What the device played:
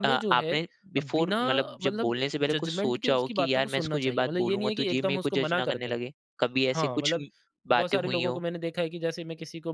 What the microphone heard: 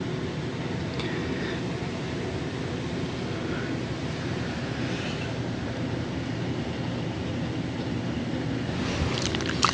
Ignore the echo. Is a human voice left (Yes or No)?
No